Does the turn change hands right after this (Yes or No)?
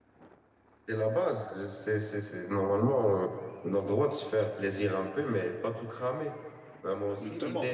No